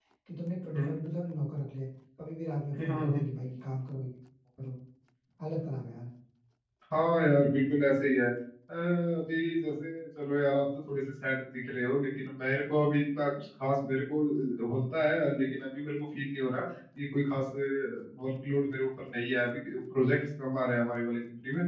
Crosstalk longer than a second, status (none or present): none